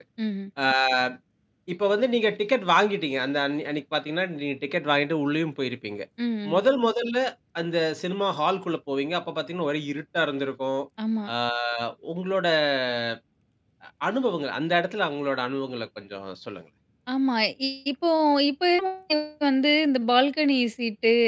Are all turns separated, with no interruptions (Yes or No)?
Yes